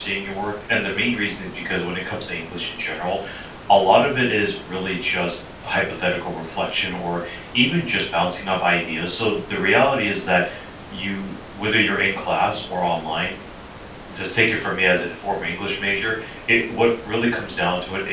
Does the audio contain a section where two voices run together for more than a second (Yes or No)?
No